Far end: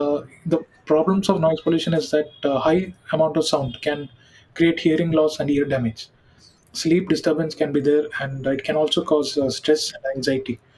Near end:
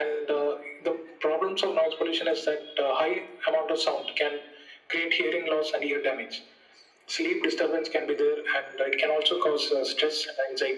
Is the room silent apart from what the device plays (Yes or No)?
Yes